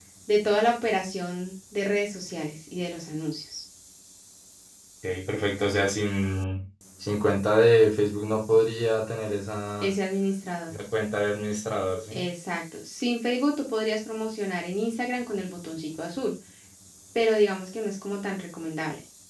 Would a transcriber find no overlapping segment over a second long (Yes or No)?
Yes